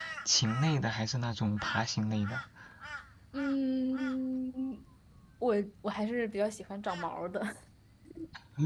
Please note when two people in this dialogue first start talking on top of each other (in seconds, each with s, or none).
none